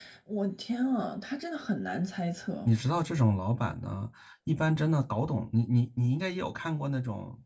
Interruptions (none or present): none